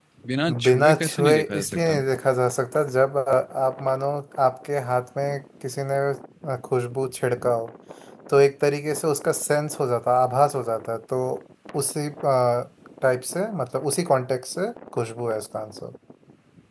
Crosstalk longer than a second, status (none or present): present